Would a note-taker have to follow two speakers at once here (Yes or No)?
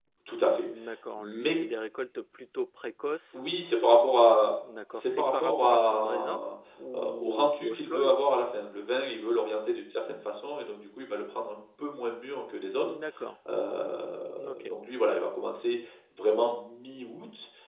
Yes